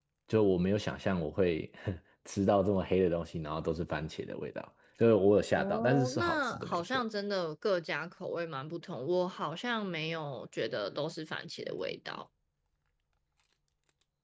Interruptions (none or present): present